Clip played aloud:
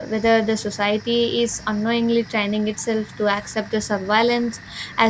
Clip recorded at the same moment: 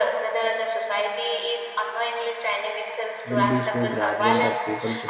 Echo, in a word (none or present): present